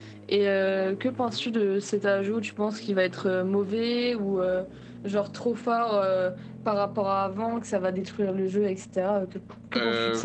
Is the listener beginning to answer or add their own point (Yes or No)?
Yes